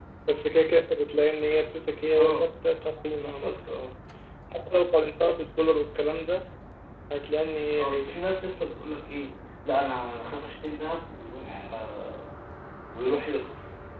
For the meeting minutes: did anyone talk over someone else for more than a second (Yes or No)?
No